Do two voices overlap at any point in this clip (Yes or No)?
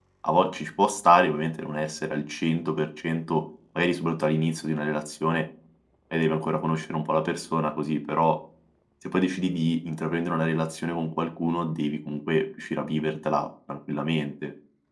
No